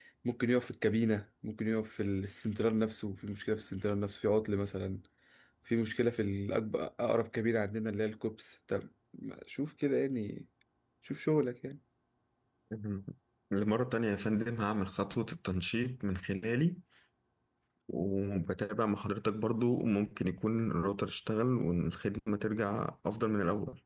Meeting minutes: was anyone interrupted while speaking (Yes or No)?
No